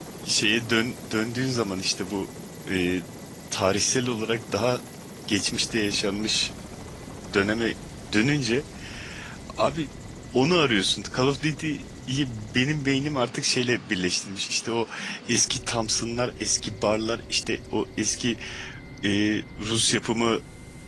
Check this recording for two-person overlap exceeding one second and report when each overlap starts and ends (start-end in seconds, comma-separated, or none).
none